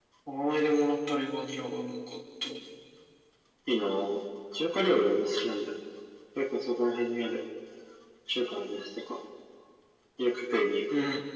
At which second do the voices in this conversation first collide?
none

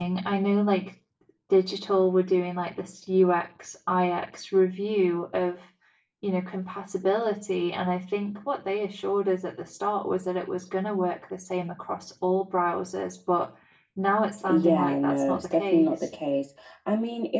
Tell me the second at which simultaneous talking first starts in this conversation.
14 s

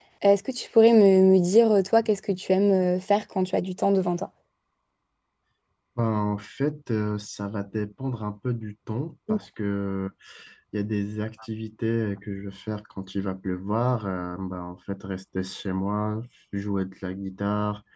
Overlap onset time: none

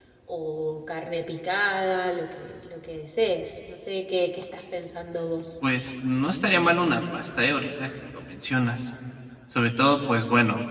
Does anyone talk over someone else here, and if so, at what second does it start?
none

